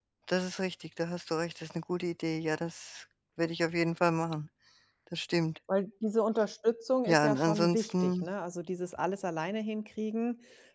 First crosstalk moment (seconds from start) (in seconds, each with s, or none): 7.1 s